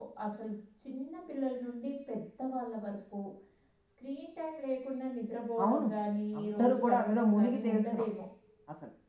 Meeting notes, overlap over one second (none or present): present